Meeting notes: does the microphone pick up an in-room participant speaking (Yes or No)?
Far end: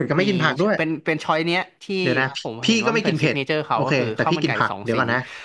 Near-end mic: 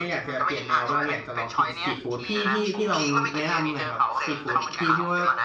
Yes